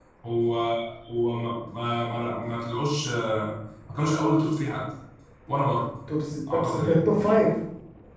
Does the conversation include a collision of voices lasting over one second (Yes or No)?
No